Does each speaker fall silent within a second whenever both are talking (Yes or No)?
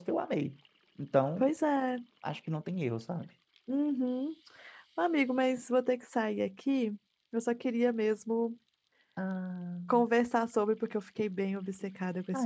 Yes